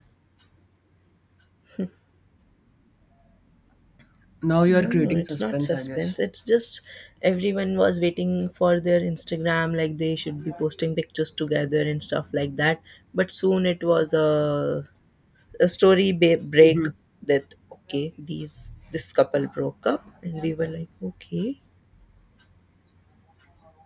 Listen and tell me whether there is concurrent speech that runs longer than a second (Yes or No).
Yes